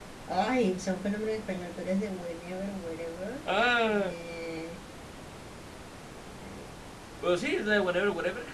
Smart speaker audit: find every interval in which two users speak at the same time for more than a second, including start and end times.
none

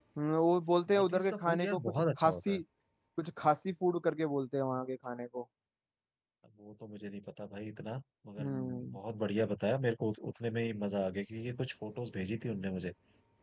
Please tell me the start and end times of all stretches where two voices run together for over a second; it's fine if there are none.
0.9-2.6

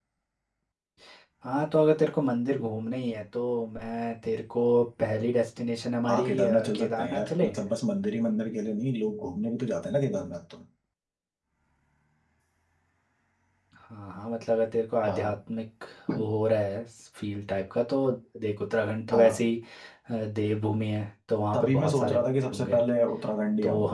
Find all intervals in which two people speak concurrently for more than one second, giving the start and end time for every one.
6.1-7.5, 21.5-22.8

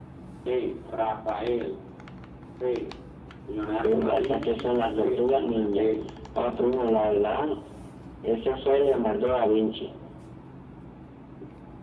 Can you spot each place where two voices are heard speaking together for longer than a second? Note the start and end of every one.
3.8-5.9

